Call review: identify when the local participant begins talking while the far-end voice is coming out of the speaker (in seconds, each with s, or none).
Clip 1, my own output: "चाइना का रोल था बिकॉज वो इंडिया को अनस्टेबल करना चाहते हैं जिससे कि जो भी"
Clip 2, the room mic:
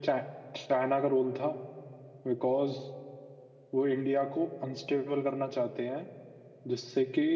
none